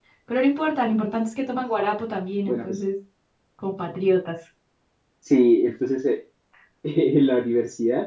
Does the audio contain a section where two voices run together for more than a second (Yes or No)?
No